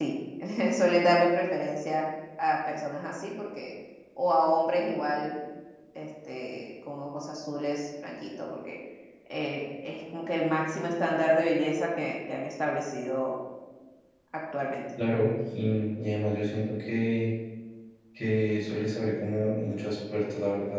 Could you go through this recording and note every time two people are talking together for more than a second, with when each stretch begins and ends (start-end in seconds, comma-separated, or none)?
none